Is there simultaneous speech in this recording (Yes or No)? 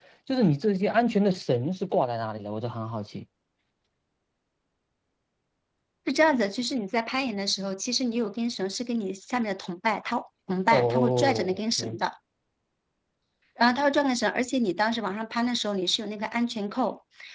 Yes